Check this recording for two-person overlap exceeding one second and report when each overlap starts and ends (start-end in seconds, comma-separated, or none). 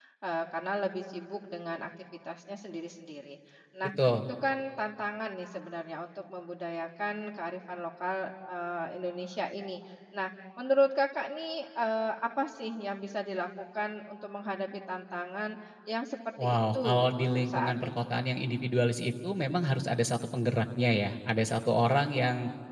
16.4-18.0